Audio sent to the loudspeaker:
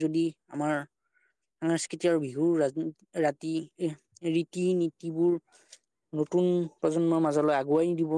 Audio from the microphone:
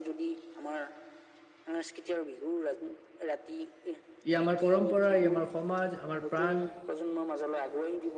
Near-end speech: present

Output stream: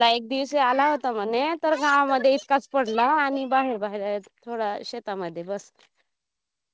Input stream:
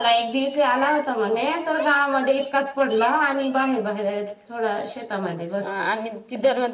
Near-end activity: present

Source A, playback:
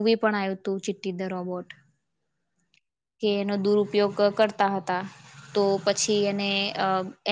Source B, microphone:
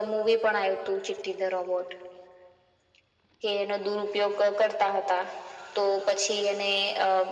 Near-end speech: none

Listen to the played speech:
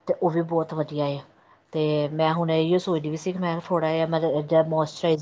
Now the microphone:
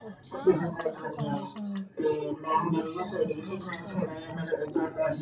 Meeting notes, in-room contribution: present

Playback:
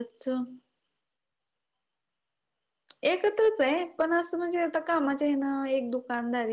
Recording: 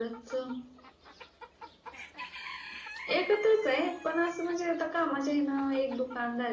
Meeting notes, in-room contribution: none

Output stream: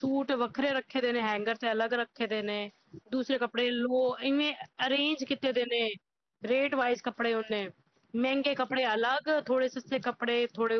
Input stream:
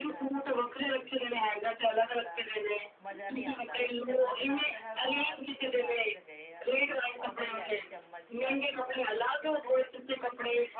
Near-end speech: present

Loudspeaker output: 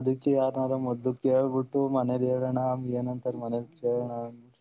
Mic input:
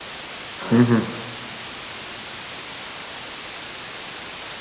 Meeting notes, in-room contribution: present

